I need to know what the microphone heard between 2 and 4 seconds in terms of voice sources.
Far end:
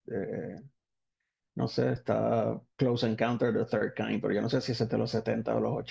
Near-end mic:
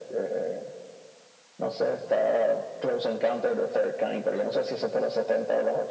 echo only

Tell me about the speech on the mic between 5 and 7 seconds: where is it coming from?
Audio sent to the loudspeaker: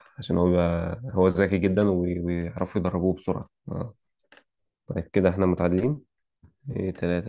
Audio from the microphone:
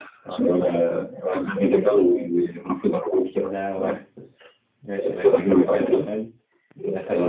both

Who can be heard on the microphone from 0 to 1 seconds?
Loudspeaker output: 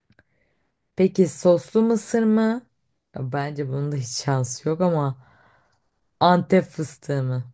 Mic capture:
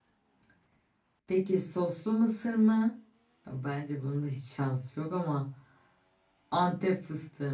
neither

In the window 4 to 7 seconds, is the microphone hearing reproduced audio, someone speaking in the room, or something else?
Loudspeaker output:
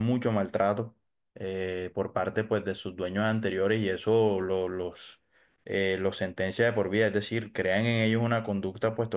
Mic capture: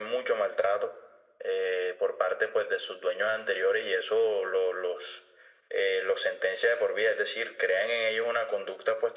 echo only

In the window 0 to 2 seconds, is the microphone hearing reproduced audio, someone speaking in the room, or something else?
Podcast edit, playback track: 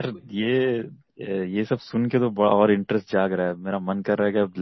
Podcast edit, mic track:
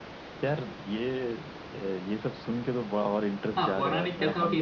echo only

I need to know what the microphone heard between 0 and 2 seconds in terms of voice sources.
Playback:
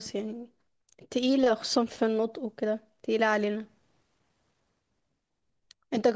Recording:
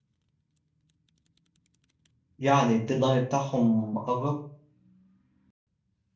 neither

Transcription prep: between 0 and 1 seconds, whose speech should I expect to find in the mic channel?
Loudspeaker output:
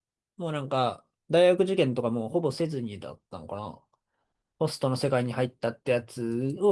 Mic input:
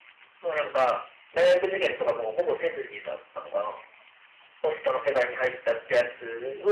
echo only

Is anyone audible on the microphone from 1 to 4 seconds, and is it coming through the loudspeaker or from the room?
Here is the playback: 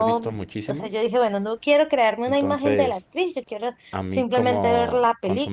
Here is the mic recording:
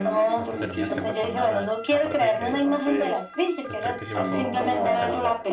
both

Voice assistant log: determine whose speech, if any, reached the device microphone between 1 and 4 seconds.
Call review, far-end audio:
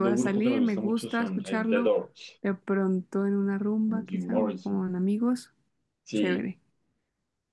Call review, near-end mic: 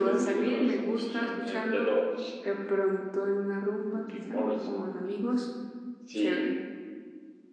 echo only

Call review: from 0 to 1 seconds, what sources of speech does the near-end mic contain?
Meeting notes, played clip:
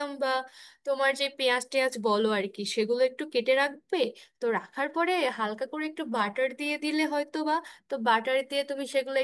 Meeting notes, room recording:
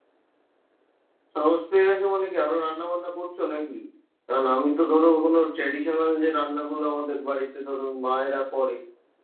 neither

